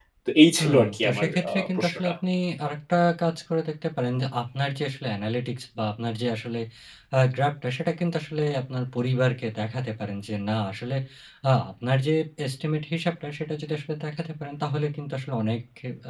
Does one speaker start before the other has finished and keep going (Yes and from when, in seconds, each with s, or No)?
Yes, from 0.6 s